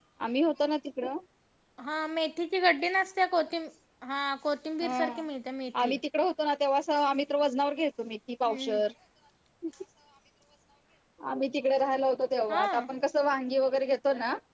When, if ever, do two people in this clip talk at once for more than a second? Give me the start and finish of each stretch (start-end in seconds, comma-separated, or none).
none